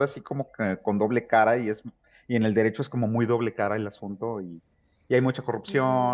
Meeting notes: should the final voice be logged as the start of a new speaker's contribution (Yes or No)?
No